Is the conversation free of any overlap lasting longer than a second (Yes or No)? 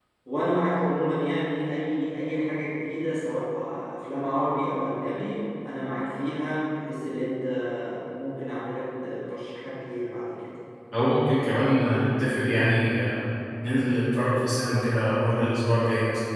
Yes